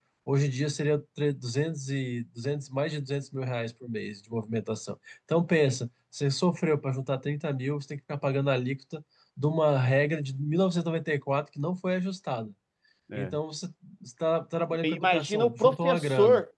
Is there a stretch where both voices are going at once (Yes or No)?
Yes